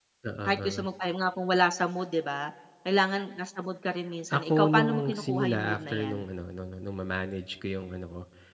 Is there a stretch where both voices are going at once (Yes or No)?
Yes